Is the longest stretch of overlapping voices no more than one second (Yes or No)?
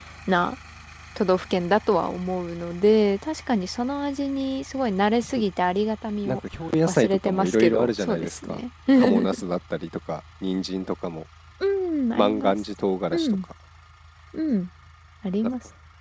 No